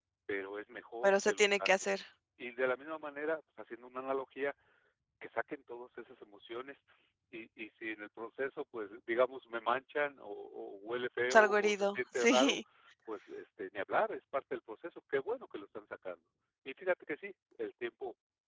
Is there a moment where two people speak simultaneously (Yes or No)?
Yes